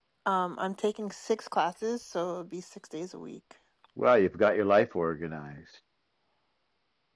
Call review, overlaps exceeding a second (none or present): none